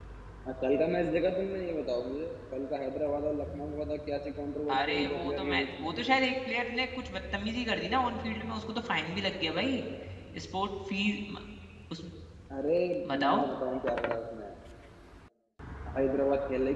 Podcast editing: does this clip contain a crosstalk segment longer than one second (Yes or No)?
Yes